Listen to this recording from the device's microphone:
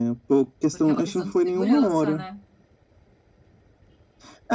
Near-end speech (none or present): present